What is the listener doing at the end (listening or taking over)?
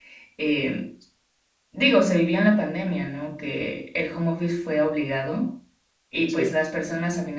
listening